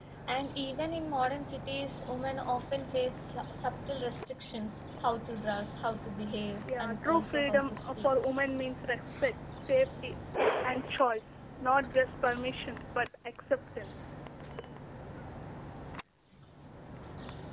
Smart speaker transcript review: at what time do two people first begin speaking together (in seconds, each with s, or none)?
6.7 s